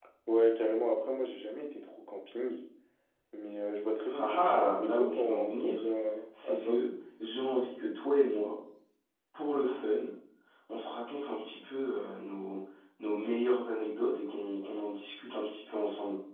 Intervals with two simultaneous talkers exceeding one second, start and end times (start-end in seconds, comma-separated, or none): 4.1-5.8